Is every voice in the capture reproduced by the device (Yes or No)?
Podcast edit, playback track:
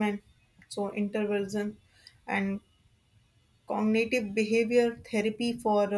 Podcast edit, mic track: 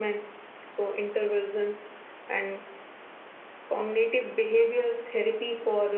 Yes